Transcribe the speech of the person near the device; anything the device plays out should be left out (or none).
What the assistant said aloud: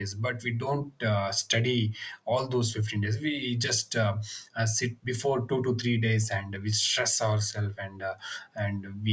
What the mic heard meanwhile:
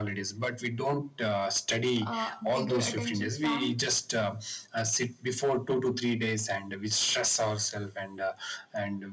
uh, bigger attention span